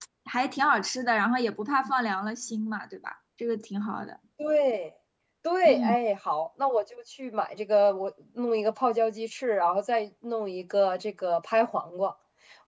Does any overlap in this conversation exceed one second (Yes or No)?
No